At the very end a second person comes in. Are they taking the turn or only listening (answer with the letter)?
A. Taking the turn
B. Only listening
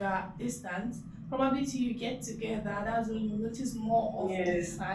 B